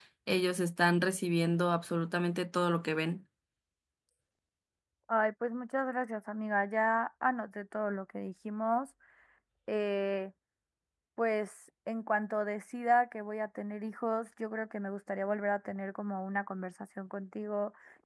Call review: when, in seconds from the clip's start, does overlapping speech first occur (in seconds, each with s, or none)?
none